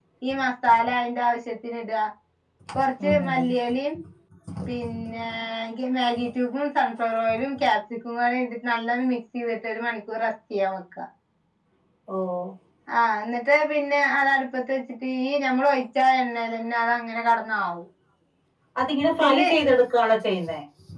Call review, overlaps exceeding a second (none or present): none